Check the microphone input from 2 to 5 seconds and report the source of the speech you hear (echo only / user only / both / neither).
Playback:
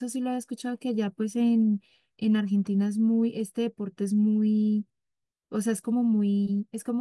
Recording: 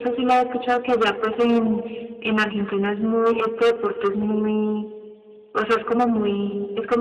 echo only